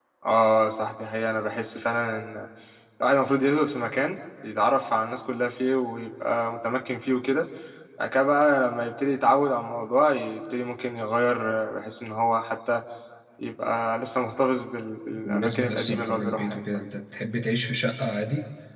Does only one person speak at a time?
No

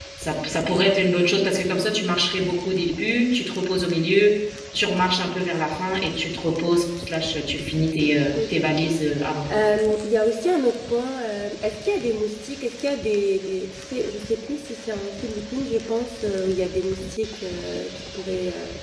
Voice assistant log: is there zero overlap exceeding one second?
Yes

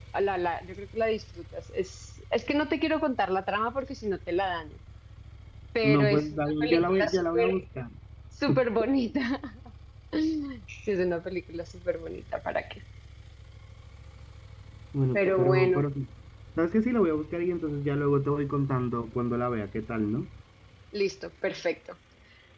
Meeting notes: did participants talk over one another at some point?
Yes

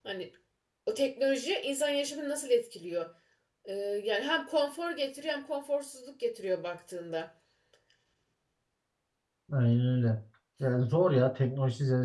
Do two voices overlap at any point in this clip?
No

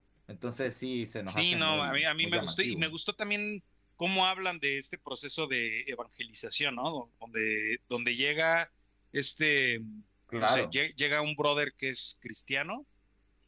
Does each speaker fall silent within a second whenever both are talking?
No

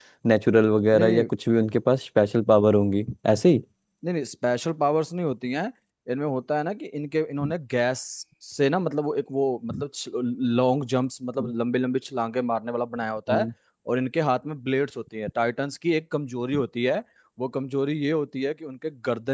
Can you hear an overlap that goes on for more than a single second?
No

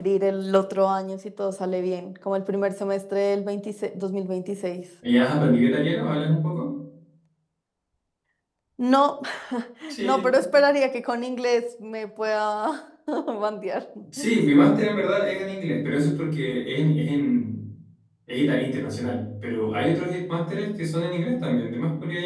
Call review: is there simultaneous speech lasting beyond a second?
No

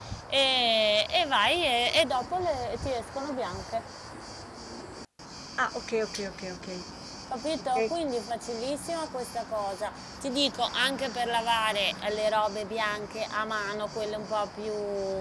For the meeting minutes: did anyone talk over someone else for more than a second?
No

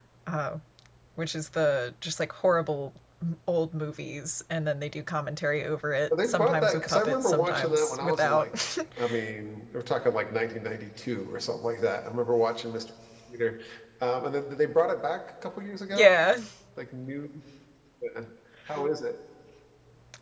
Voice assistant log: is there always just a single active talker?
No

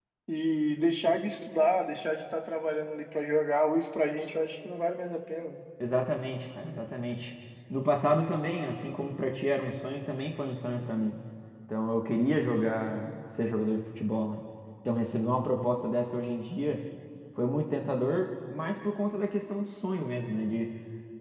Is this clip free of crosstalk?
Yes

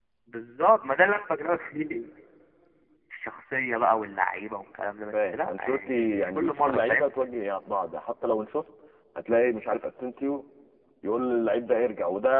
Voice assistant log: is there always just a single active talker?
No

